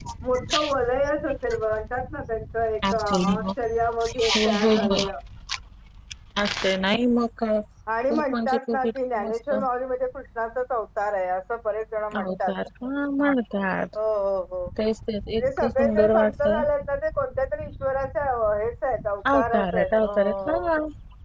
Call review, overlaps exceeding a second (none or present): present